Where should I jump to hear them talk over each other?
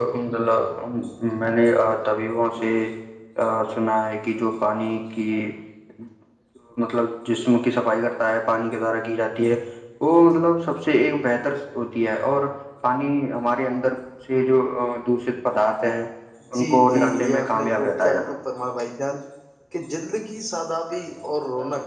16.5 s

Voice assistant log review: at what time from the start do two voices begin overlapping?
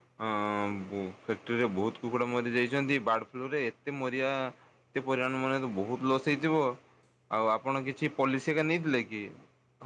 none

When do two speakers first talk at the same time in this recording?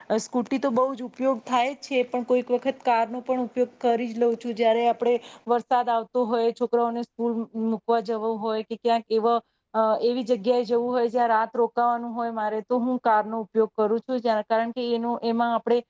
none

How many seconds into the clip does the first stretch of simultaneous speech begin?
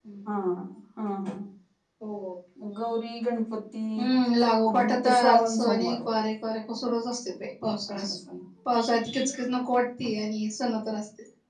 4.7 s

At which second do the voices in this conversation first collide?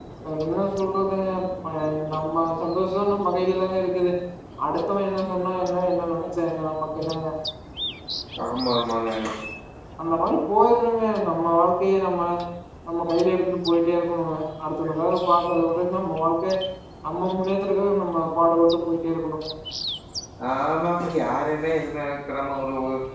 none

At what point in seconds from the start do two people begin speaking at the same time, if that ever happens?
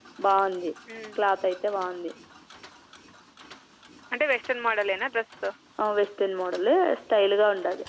none

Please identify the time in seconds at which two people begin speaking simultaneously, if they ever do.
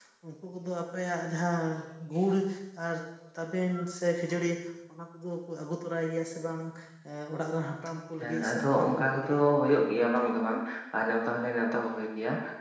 8.2 s

